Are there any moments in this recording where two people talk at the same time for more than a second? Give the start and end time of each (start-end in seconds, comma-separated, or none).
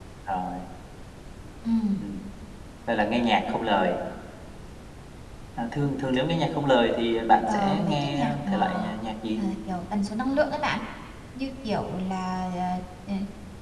7.5-8.9